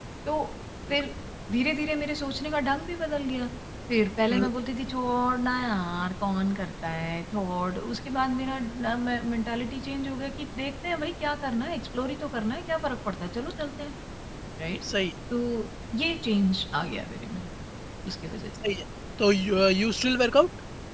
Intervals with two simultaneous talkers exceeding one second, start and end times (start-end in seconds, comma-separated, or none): none